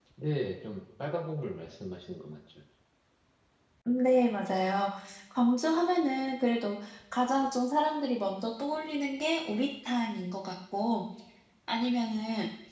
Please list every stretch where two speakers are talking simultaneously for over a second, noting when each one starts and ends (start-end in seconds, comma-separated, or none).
none